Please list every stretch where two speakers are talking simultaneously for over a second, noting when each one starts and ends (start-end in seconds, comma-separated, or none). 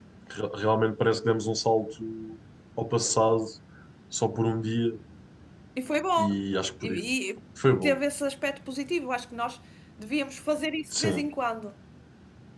none